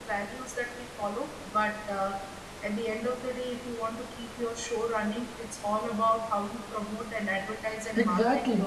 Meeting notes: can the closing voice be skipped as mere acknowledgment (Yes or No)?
No